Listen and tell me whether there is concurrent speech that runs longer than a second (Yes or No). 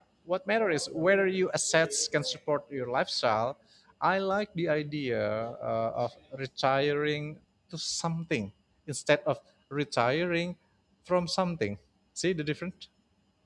No